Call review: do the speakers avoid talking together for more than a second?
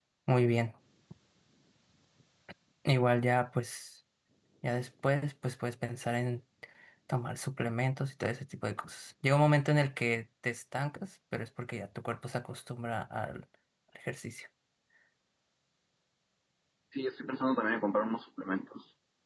Yes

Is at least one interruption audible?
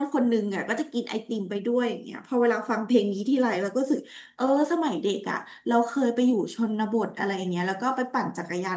No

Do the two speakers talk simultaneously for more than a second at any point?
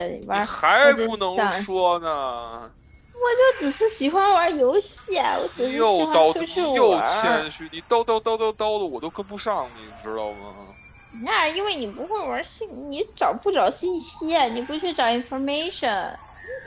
Yes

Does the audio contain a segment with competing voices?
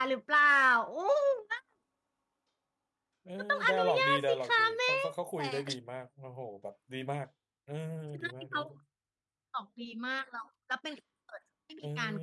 Yes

